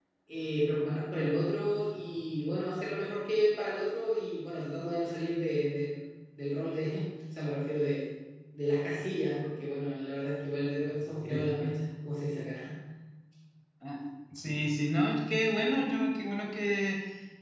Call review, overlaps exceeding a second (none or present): none